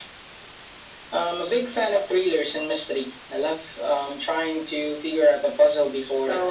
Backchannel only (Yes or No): No